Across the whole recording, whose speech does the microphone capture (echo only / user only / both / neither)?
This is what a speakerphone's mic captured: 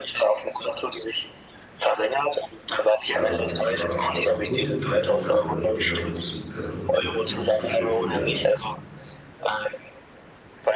both